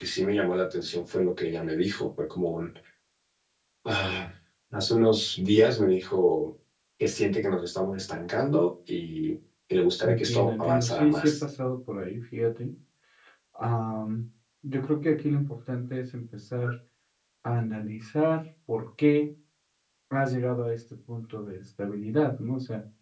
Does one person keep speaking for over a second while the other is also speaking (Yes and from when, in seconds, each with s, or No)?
Yes, from 10.1 s